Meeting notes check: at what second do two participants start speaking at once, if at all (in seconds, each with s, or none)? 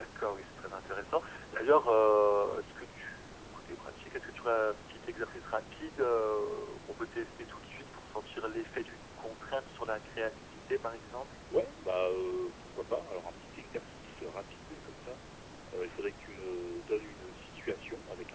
none